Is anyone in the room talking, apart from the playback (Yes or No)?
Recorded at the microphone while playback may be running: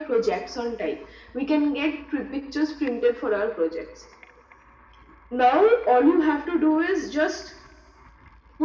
No